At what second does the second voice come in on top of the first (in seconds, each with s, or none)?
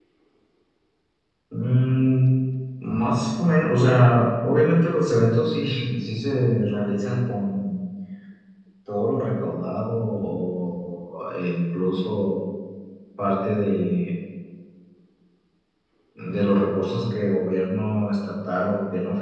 none